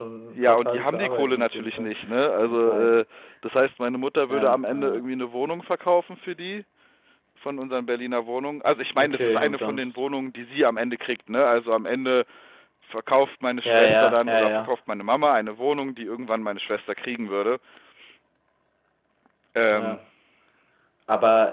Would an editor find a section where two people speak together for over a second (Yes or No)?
Yes